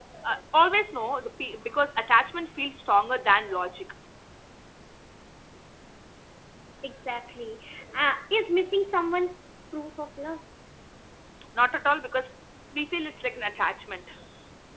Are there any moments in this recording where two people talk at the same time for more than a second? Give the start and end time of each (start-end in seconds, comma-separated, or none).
none